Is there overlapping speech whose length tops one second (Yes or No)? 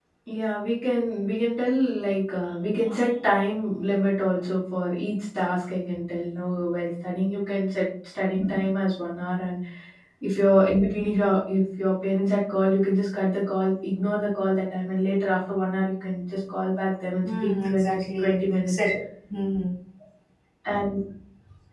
Yes